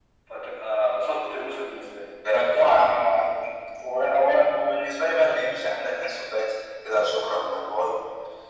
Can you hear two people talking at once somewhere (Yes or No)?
No